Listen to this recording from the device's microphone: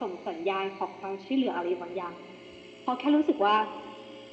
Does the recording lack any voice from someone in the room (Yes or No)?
Yes